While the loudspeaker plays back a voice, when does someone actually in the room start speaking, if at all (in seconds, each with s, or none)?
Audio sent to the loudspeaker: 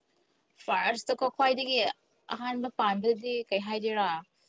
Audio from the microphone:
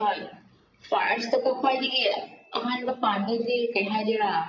none